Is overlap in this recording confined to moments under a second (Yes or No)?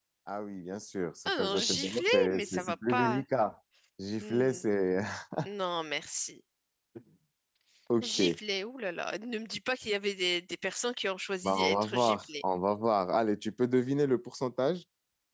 No